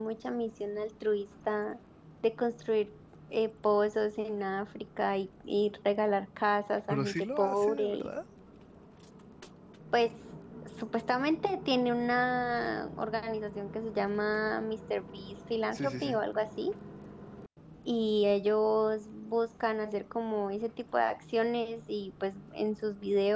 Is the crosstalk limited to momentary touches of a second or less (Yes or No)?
No